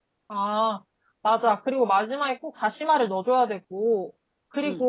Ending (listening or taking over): taking over